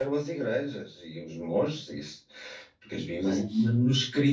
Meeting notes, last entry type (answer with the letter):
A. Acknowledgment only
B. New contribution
A